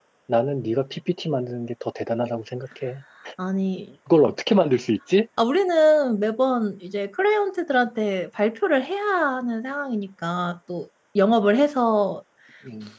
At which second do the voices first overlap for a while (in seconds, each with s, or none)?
none